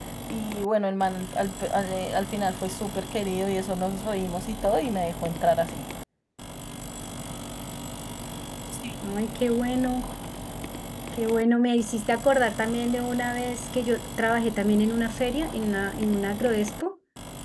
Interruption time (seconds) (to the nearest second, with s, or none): none